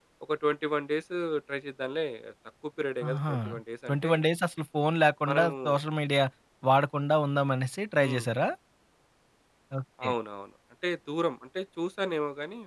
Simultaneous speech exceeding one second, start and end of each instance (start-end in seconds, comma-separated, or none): none